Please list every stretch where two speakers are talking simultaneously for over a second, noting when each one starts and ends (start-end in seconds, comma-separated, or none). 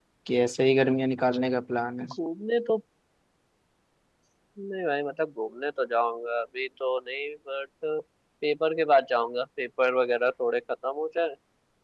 none